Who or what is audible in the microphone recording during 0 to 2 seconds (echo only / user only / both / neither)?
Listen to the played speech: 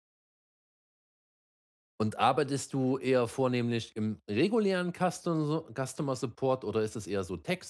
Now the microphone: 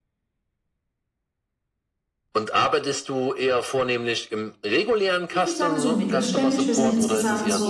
neither